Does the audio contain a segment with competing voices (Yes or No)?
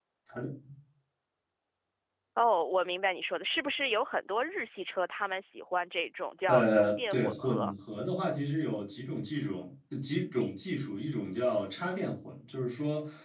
Yes